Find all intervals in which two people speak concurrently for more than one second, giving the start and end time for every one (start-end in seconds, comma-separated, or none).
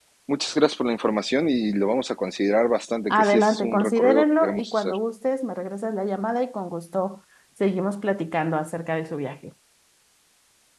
3.1-4.9